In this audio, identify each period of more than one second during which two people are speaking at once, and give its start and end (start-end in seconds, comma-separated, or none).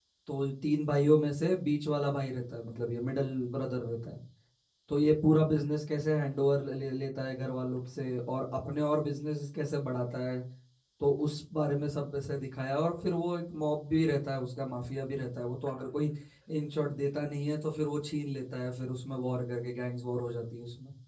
none